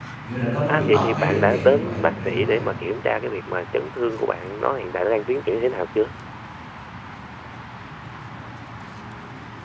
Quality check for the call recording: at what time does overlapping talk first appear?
0.7 s

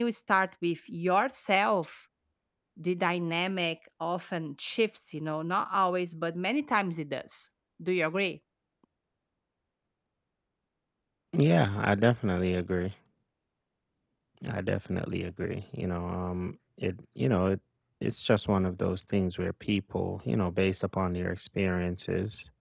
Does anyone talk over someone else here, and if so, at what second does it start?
none

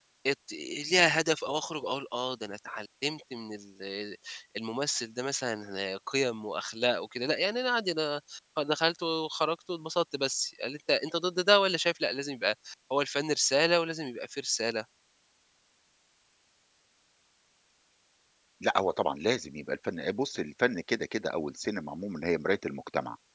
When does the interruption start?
none

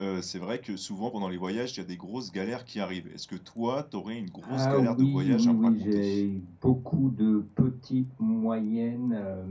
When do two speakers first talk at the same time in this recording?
4.4 s

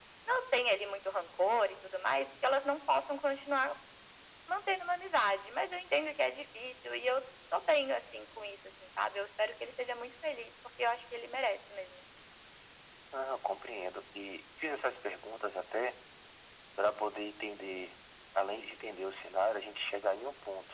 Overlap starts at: none

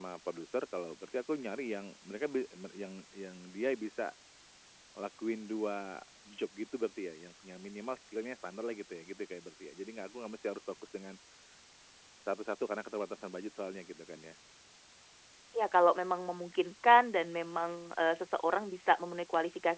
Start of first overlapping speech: none

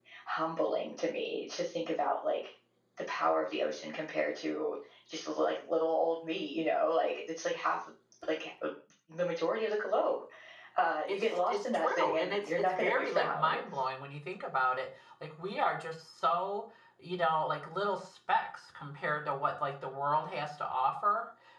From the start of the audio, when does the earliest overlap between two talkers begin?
11.1 s

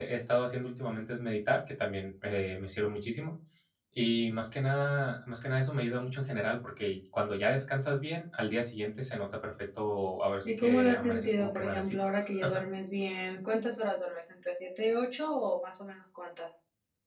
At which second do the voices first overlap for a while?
10.4 s

